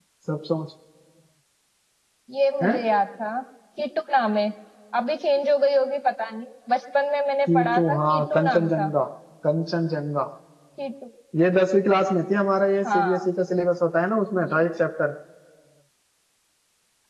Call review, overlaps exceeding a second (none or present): present